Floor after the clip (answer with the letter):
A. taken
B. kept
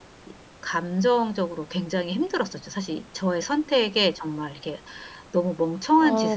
A